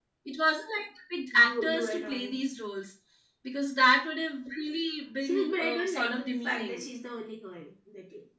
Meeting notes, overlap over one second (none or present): present